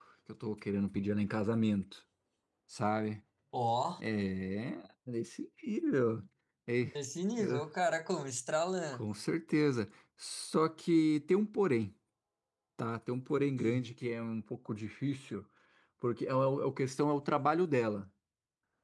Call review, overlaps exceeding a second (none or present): none